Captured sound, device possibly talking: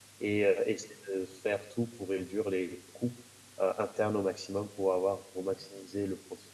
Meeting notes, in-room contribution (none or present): present